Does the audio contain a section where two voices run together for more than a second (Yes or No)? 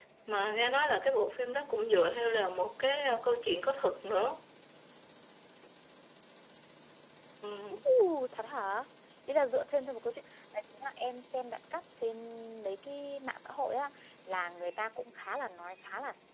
No